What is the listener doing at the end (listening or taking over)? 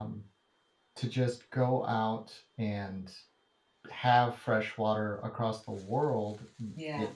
listening